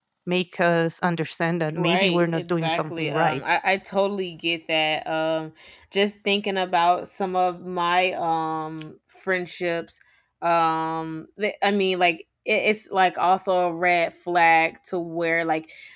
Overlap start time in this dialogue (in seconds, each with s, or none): 1.8 s